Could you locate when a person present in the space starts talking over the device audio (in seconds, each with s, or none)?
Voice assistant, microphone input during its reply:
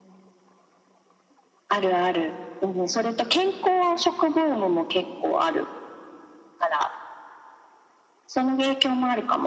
none